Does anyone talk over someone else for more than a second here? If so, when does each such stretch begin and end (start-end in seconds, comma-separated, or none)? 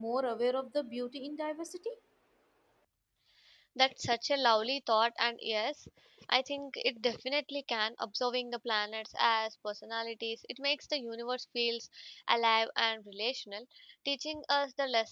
none